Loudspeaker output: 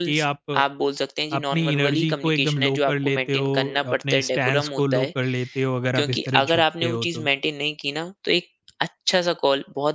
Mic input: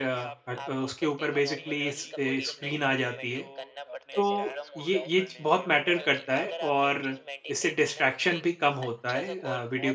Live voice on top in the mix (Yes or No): Yes